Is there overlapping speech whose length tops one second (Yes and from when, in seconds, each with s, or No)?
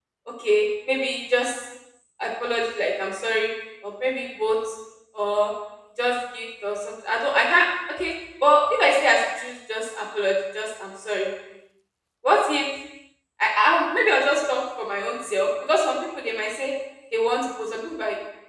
No